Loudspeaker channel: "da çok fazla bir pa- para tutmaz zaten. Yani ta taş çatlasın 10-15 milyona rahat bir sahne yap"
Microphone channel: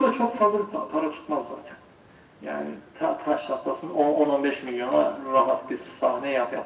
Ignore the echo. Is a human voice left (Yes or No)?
No